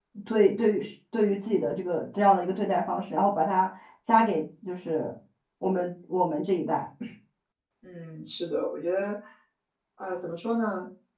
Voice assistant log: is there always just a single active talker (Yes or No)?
Yes